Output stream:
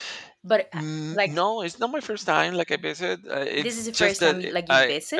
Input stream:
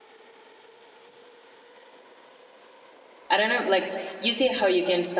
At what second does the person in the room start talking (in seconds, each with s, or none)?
3.3 s